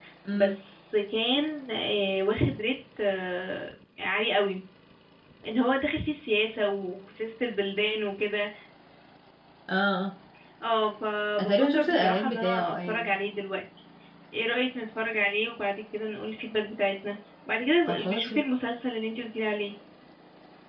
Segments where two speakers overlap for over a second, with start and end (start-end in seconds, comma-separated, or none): 11.4-13.1